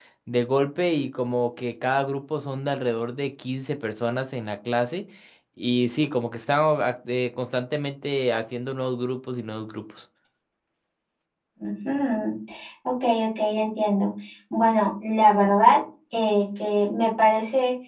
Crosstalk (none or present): none